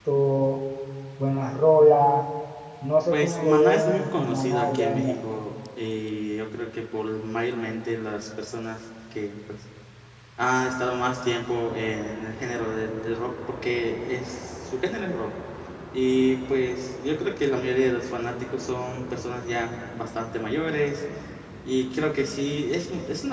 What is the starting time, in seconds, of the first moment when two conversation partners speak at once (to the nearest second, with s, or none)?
3 s